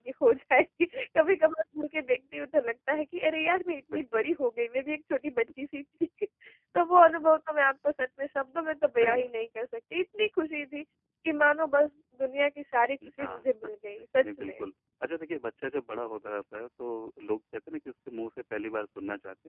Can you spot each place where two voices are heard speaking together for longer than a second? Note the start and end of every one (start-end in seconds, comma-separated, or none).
none